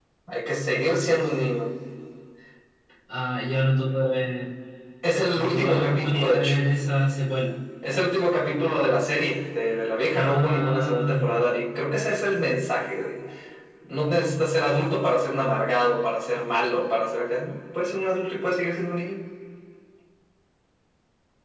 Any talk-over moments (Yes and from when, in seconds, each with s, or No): Yes, from 5.4 s